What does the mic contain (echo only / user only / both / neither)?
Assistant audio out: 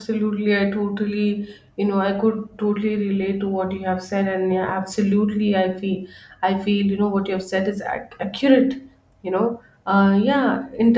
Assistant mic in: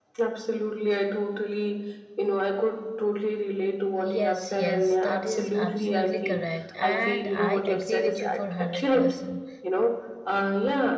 both